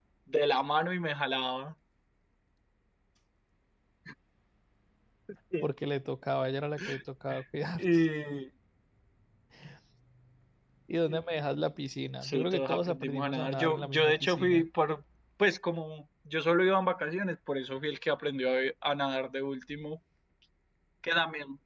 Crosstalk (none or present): present